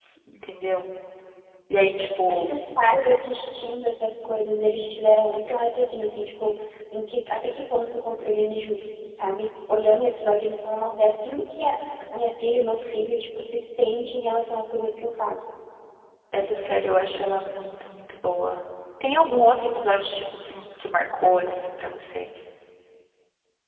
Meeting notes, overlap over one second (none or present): none